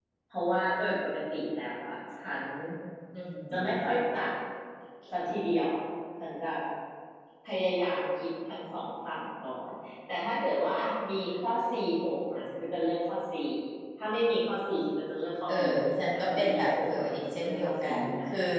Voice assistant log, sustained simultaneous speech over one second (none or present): present